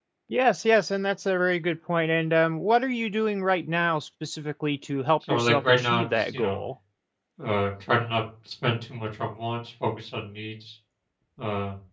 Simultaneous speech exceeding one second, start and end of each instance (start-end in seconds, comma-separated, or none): 5.3-6.6